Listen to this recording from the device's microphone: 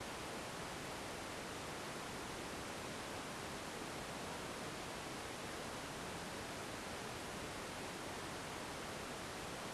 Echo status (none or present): none